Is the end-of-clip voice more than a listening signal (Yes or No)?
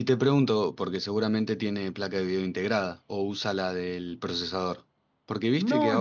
Yes